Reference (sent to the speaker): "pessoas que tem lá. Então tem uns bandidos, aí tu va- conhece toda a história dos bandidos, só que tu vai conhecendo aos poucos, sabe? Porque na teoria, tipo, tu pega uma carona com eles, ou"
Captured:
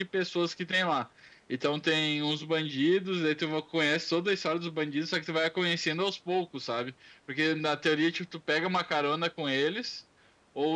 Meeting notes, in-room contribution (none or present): none